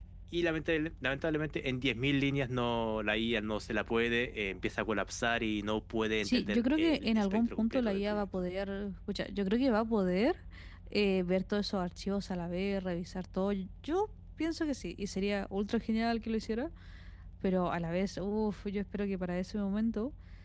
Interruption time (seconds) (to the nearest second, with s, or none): 6 s